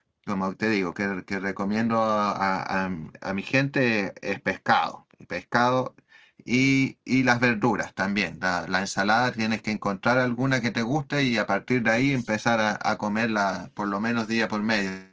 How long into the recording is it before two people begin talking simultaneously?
none

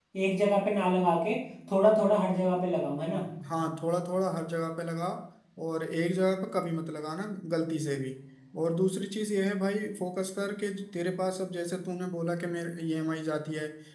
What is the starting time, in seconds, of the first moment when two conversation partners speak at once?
none

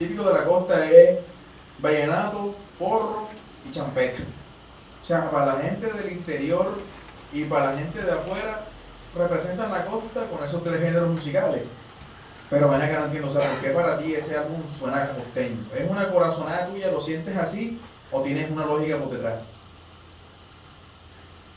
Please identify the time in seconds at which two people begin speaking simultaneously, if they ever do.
none

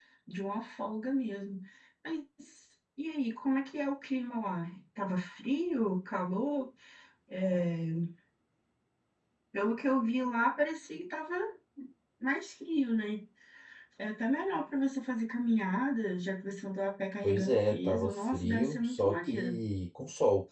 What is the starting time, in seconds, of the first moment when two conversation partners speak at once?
17.2 s

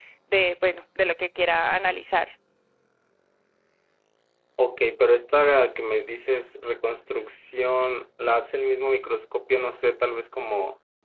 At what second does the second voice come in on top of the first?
none

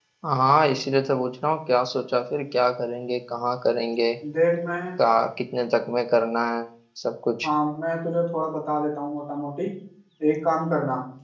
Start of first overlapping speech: none

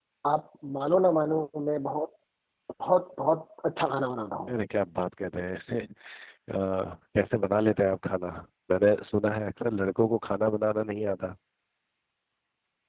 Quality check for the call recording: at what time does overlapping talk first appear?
none

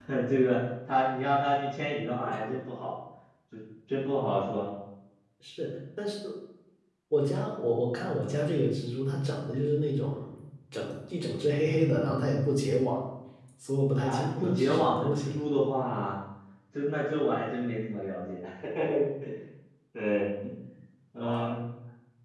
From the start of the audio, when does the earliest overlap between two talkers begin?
14.1 s

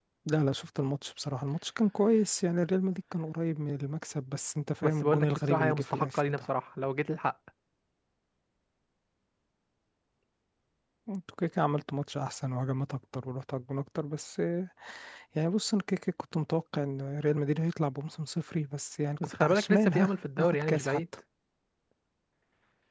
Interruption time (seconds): 4.8 s

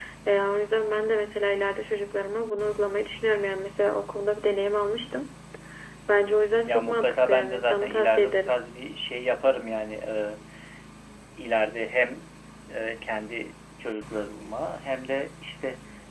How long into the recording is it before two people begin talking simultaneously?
6.7 s

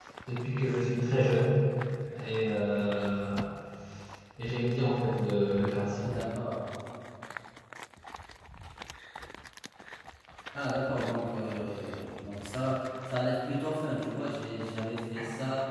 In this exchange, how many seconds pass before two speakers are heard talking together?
none

